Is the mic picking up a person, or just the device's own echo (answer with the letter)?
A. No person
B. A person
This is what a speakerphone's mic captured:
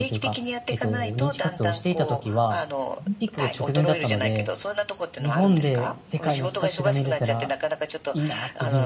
B